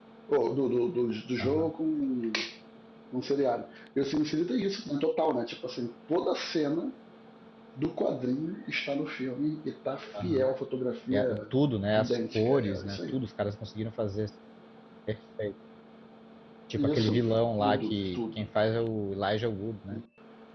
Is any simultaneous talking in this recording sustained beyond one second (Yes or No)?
Yes